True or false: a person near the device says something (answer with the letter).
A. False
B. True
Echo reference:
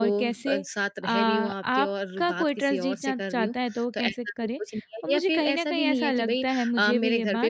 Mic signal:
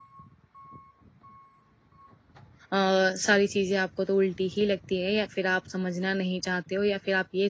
B